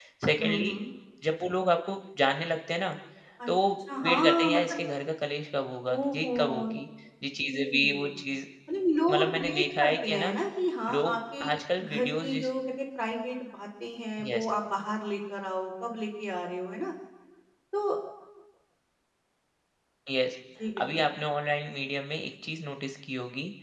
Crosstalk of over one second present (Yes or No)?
Yes